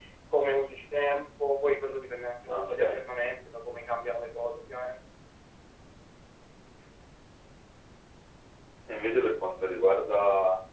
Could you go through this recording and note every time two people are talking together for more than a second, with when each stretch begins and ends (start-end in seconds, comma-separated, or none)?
none